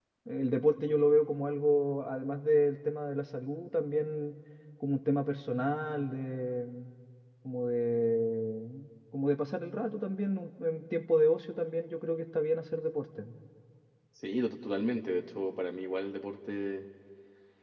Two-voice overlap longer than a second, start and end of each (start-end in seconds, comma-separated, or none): none